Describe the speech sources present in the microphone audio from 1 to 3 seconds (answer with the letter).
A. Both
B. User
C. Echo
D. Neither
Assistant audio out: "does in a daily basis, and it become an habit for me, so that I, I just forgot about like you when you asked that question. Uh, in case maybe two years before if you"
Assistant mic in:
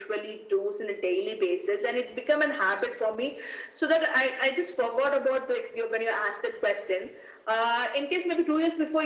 C